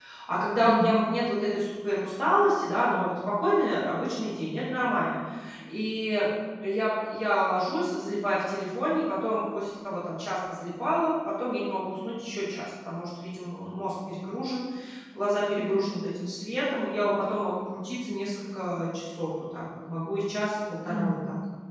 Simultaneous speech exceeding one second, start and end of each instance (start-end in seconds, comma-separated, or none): none